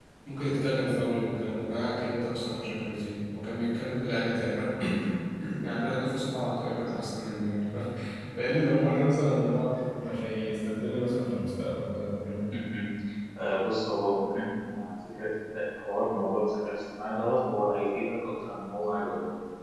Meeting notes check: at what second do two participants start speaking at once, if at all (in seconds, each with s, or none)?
none